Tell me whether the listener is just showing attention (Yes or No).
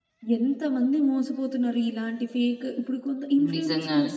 Yes